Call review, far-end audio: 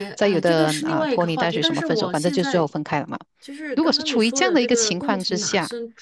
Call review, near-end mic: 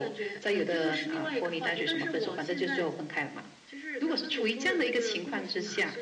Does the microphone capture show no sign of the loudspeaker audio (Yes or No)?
No